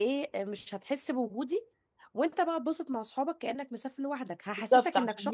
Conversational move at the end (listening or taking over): taking over